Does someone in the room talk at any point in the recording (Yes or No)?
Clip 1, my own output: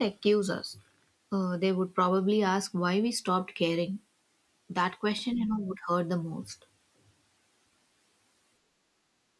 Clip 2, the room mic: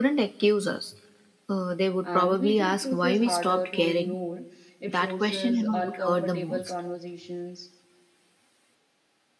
Yes